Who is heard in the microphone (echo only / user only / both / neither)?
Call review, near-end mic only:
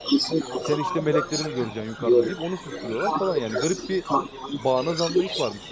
both